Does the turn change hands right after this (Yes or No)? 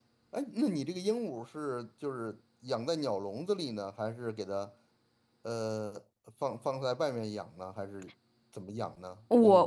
Yes